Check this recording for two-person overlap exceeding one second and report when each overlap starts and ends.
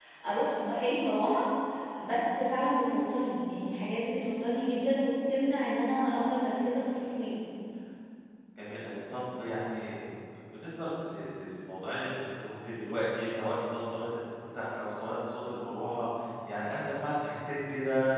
none

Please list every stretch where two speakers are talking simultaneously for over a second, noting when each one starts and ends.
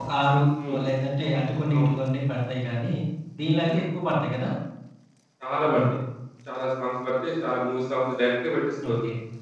none

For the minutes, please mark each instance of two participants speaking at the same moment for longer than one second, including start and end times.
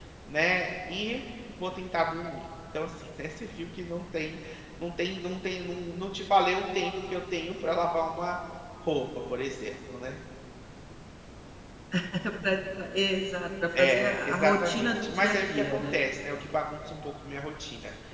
13.8-16.0

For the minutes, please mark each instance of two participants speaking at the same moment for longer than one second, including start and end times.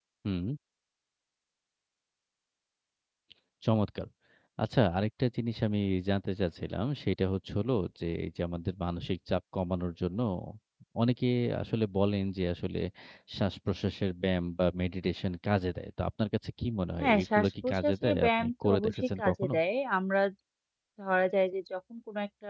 17.0-19.5

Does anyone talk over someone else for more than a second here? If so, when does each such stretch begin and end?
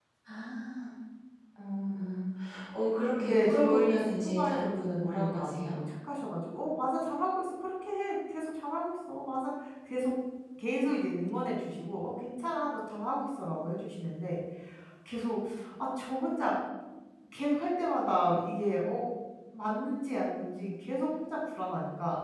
3.2-5.8

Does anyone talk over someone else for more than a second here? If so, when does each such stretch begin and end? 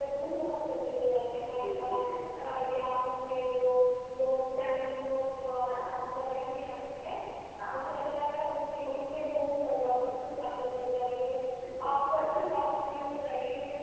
1.6-2.8

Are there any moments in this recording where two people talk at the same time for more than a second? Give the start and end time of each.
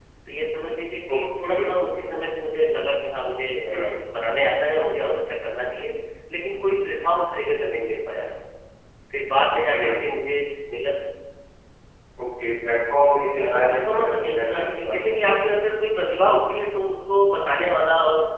13.4-15.2

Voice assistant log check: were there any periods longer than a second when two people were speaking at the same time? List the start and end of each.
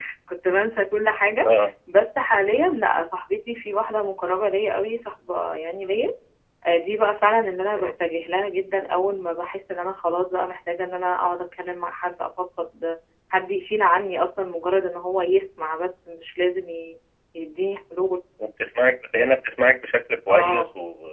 none

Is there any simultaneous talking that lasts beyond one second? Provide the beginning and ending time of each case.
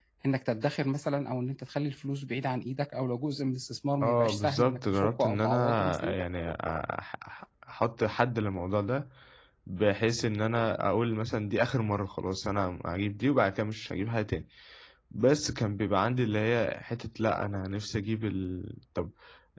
4.0-6.2

